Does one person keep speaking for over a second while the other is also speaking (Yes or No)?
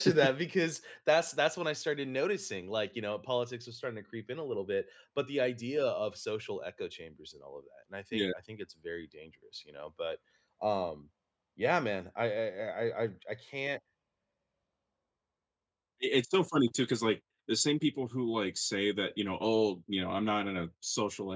No